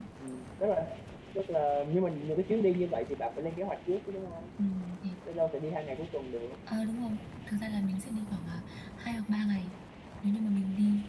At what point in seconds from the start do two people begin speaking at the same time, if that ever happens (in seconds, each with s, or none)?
none